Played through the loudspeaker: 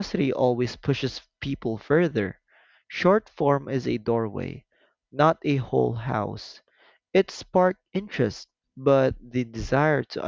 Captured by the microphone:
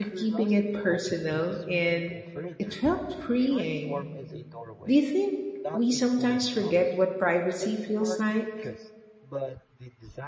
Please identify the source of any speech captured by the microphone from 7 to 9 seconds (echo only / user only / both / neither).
both